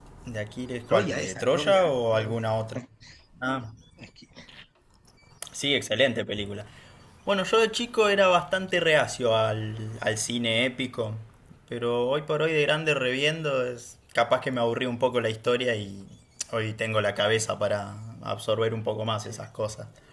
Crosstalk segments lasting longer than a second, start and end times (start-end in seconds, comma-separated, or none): 0.9-2.4